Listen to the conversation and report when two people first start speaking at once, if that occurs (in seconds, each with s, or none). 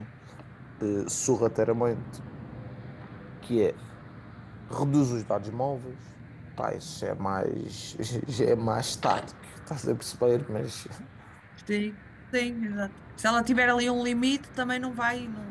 none